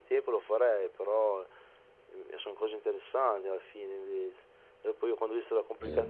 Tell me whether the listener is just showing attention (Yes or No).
Yes